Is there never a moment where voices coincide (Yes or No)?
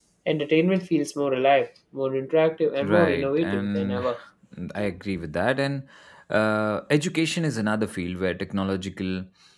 No